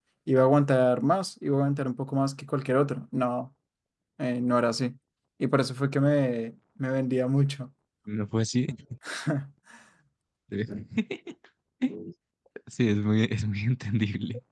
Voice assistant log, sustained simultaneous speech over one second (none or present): none